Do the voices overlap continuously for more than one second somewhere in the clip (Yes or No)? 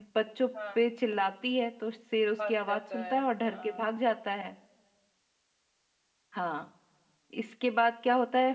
Yes